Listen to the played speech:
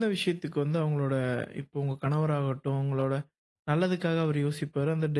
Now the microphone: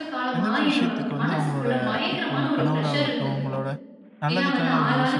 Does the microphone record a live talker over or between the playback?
Yes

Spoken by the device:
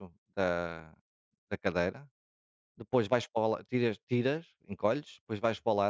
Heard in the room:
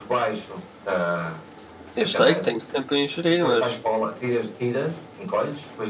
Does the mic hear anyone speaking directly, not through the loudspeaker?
Yes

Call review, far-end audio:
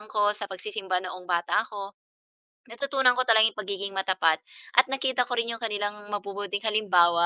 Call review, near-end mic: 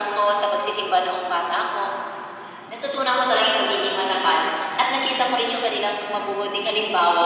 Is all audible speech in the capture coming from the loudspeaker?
Yes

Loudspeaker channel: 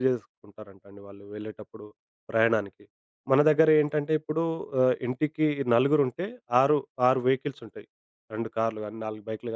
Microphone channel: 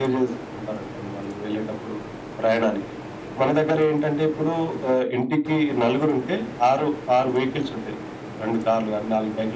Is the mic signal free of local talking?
Yes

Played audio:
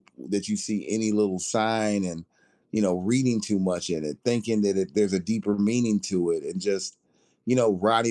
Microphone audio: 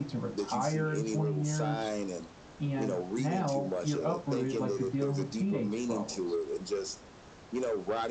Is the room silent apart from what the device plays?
No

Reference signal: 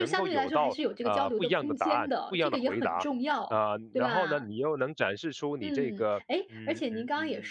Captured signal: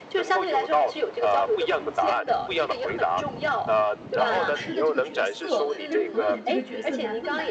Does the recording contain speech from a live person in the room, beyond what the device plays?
Yes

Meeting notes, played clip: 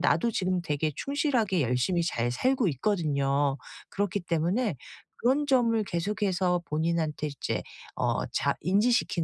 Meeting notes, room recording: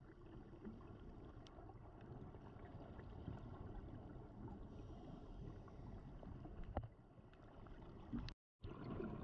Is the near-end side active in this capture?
No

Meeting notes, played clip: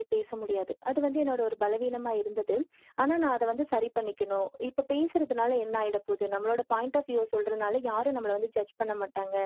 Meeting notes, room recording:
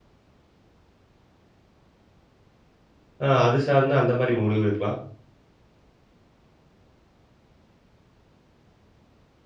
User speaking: Yes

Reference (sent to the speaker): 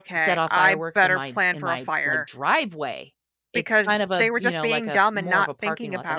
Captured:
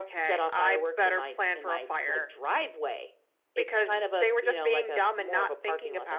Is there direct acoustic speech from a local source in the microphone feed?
No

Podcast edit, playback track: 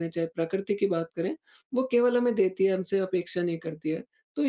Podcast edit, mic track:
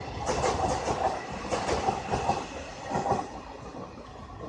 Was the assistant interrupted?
No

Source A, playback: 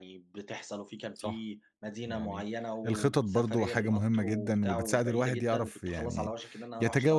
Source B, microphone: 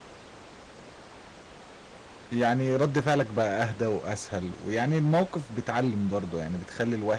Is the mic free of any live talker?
No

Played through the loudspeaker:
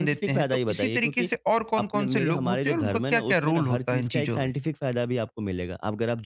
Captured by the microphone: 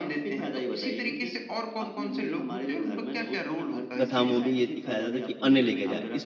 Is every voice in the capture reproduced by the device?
No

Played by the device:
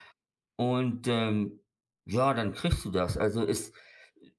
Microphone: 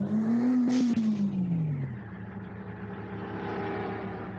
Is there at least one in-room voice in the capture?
No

